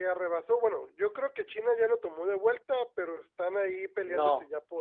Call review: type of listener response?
taking over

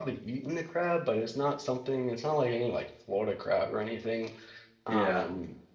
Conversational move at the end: listening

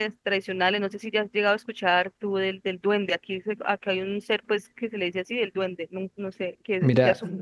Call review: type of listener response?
taking over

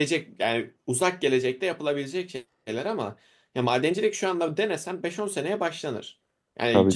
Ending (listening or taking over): listening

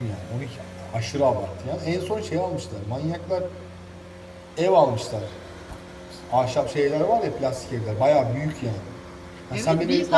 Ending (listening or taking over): taking over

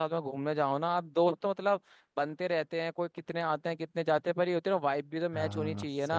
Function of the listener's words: taking over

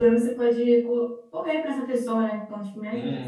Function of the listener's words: taking over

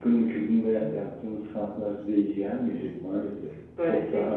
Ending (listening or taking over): taking over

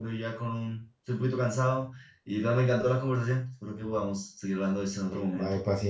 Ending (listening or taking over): taking over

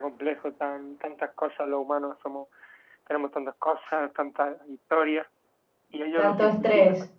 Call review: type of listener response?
listening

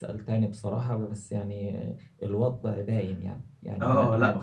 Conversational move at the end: taking over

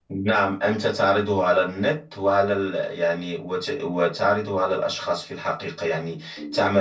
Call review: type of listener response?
listening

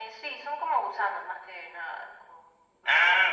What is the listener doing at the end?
taking over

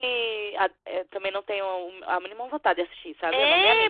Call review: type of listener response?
taking over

